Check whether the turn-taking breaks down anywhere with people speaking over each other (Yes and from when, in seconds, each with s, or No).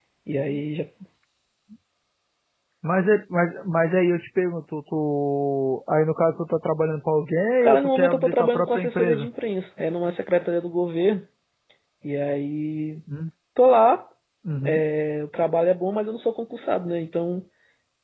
Yes, from 7.6 s